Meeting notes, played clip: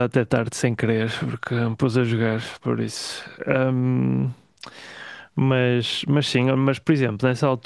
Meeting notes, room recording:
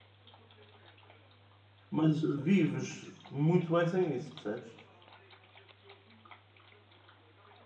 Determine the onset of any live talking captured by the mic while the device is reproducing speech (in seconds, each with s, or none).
1.9 s